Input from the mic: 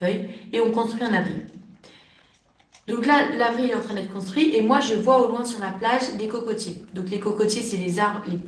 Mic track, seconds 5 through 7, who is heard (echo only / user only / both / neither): user only